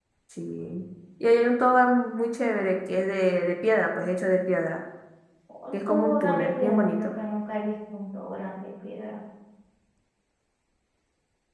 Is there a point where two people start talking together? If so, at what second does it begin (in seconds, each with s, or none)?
5.7 s